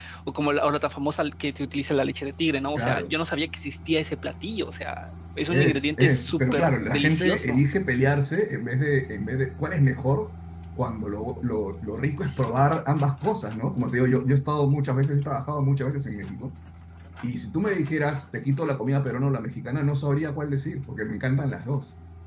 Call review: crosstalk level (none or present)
present